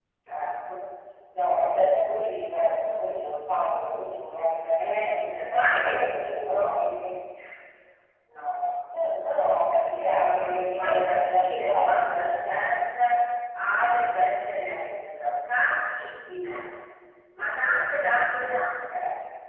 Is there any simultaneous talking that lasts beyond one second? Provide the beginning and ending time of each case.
4.8-6.6, 10.4-12.7

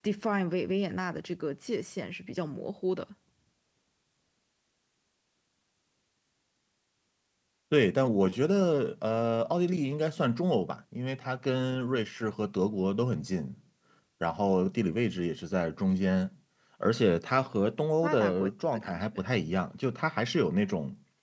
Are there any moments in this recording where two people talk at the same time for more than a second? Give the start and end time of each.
18.0-19.2

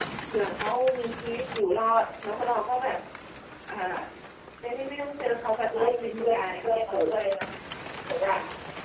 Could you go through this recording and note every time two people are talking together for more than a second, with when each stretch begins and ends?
5.7-7.1

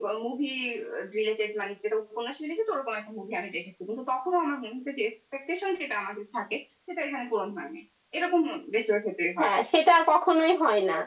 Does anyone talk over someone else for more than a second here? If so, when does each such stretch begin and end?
none

